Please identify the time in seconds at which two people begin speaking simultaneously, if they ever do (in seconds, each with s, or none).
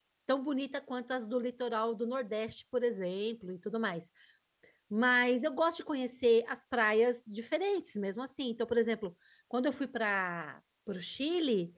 none